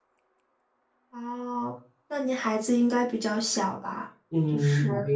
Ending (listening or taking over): taking over